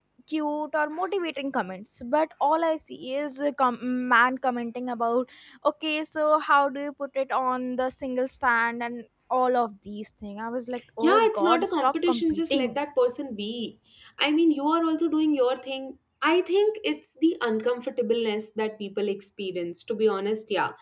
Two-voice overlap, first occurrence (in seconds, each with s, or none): 11.0 s